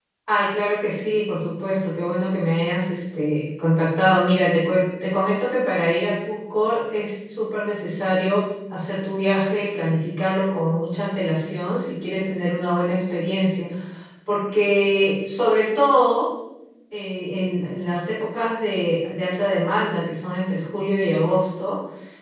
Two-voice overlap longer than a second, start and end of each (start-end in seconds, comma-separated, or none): none